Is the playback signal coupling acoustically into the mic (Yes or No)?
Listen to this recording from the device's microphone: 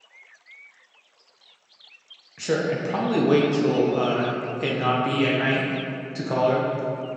No